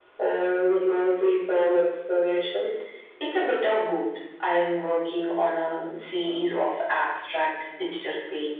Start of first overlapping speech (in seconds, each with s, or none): none